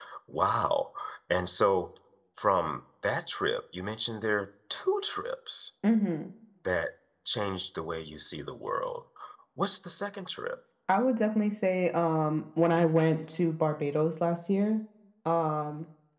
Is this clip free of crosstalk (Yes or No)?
Yes